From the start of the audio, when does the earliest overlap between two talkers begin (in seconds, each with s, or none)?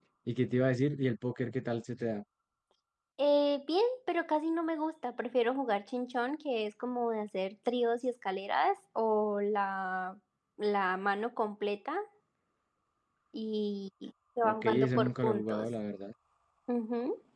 14.4 s